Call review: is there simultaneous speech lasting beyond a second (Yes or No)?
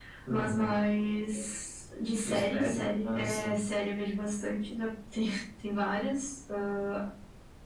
Yes